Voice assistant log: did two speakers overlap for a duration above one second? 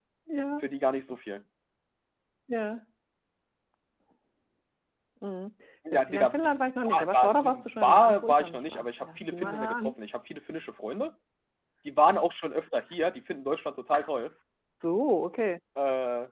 Yes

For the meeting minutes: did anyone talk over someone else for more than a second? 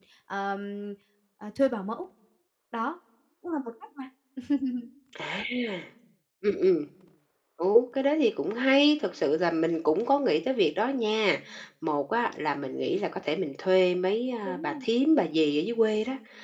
No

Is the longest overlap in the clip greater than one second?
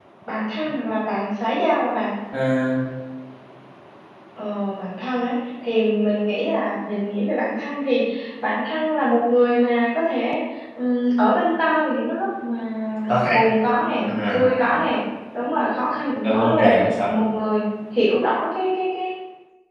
No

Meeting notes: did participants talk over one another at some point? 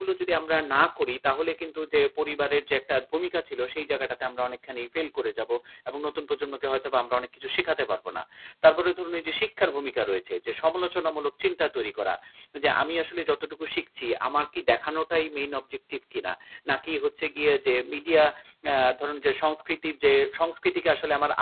No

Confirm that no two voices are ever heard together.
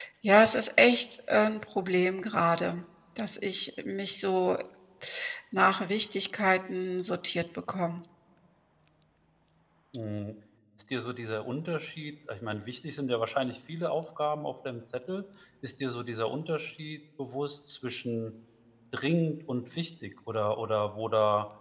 Yes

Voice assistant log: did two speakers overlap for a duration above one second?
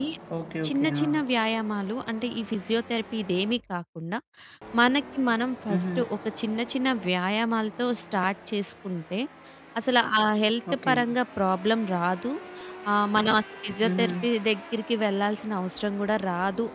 No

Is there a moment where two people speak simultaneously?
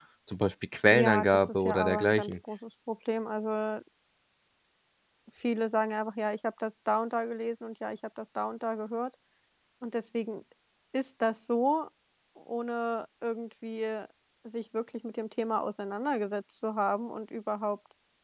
Yes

